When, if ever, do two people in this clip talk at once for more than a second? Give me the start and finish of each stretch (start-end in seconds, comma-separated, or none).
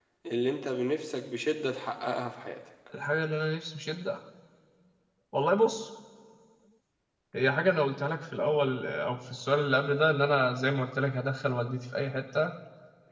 none